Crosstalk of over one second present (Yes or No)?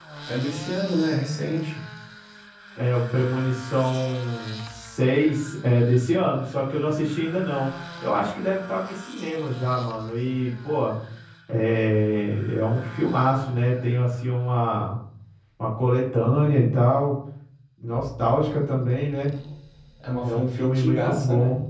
Yes